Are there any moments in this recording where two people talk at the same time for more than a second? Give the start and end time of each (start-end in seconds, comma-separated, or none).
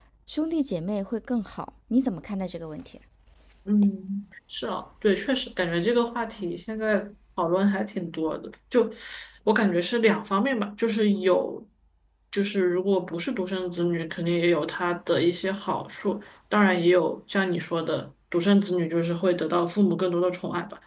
none